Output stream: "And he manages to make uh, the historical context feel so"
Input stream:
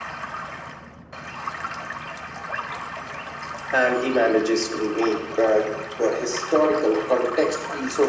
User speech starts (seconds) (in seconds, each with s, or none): none